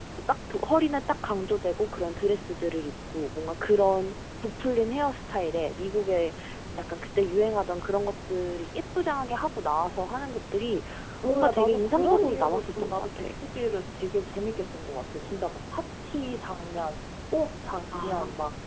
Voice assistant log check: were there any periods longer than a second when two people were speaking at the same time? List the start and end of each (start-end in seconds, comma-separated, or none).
11.3-13.3